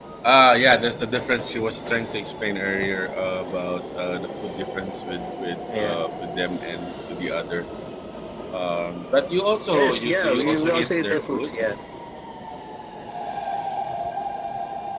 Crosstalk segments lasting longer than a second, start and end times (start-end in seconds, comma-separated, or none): 9.7-11.5